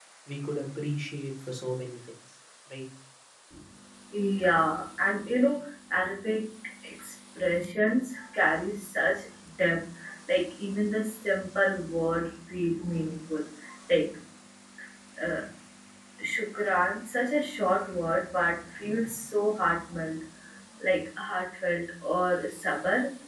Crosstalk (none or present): none